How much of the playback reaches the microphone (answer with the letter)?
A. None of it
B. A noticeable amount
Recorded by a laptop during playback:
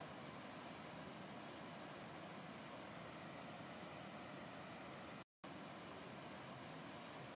A